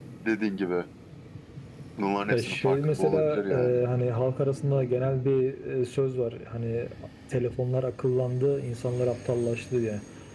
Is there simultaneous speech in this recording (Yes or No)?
Yes